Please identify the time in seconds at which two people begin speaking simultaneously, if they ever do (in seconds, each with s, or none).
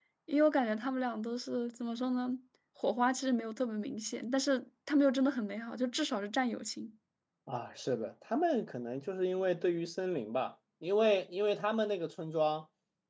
none